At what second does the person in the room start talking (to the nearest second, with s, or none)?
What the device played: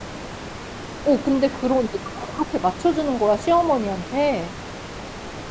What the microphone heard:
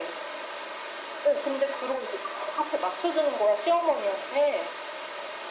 none